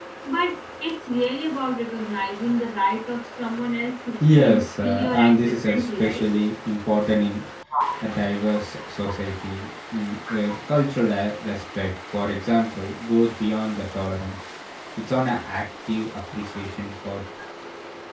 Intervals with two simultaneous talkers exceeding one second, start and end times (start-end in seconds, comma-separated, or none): 4.3-6.3